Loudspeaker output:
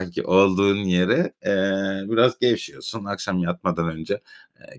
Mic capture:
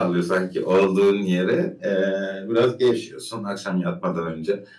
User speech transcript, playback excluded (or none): none